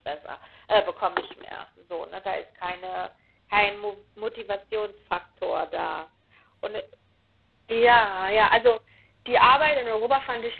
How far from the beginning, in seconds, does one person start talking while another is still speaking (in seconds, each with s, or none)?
none